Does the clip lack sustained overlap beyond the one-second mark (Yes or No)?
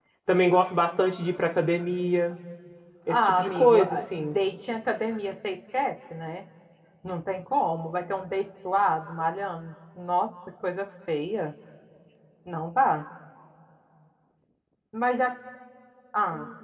No